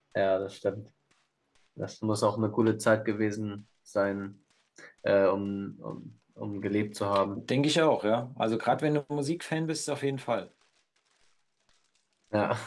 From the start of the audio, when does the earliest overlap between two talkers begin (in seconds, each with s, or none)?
none